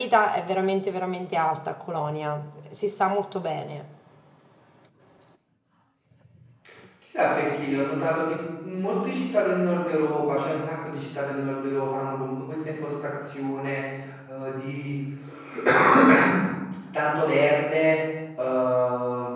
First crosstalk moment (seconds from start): none

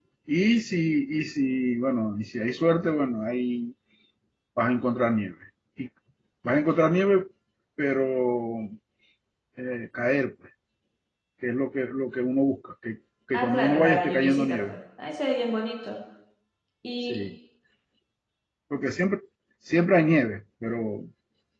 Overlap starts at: 13 s

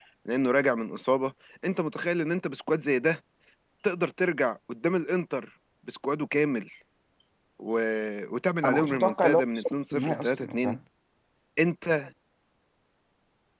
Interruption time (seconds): 9 s

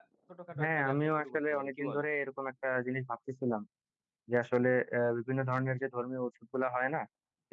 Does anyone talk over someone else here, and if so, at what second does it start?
1 s

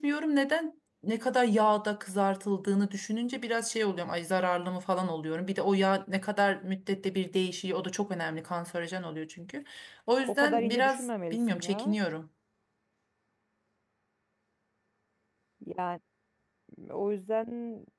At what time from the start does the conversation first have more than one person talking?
10 s

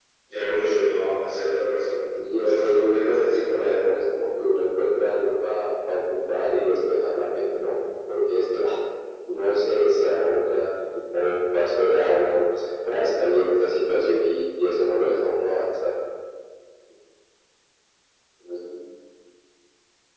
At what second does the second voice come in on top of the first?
2 s

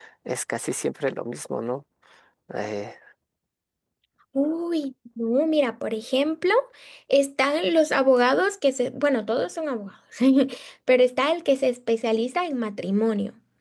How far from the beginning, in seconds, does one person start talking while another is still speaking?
none

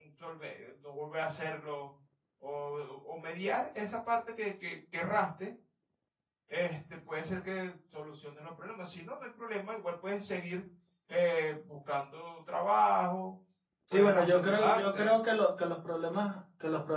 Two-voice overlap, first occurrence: 14 s

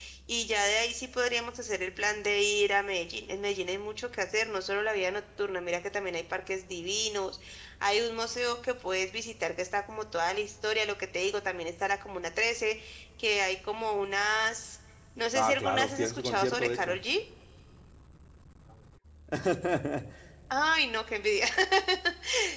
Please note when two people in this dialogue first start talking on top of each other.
15 s

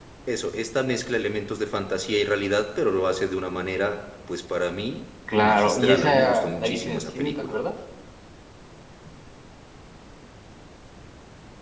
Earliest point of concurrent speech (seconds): 5 s

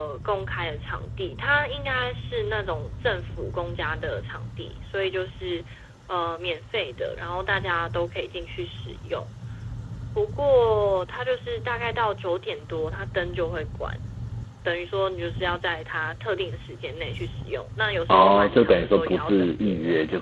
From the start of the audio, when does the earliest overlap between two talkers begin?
18 s

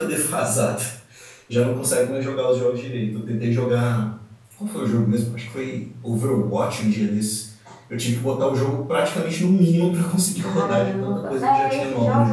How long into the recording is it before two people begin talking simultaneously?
10 s

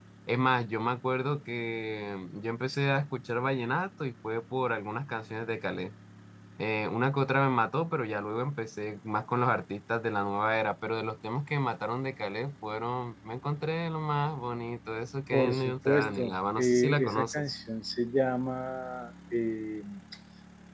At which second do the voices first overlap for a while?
15 s

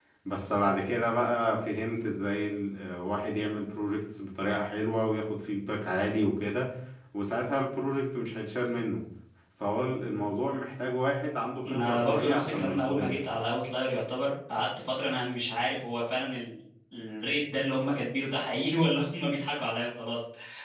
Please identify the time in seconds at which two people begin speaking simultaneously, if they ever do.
12 s

